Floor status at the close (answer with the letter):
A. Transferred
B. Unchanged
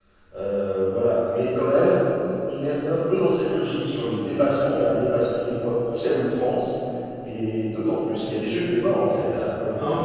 A